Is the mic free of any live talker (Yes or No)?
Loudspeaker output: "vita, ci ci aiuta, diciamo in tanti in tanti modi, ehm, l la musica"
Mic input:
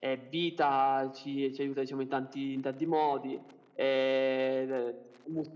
Yes